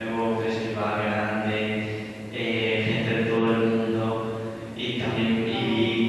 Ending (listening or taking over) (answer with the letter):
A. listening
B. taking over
A